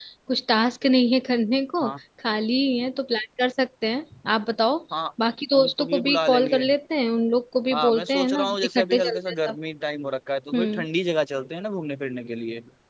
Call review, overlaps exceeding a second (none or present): present